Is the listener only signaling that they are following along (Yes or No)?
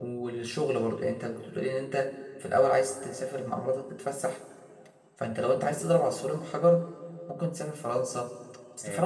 Yes